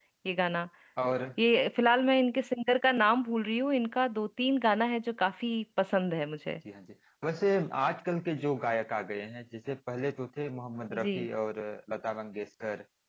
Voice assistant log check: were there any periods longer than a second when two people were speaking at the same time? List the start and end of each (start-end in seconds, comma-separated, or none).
none